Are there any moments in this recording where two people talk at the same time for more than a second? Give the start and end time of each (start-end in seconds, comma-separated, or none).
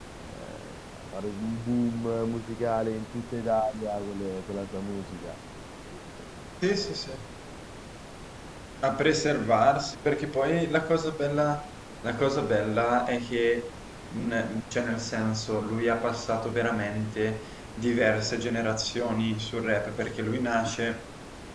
none